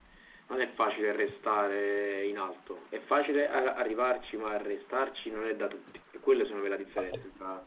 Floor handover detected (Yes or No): Yes